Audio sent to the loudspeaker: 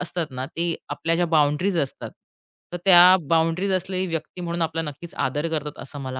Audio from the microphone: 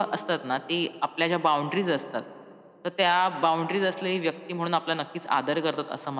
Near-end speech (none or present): none